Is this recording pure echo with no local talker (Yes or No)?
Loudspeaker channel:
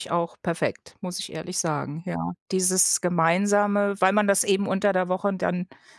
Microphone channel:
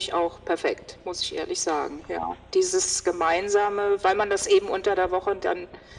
Yes